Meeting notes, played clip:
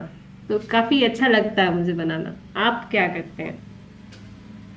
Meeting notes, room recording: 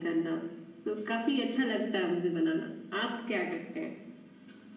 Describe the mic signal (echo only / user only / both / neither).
echo only